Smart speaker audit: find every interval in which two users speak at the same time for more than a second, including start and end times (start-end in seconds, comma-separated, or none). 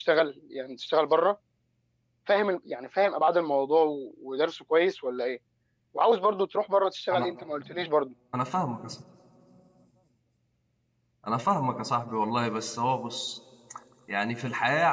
none